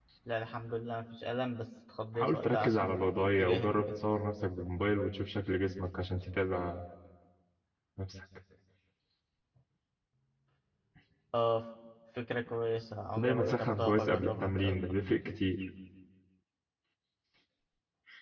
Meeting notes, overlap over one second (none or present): present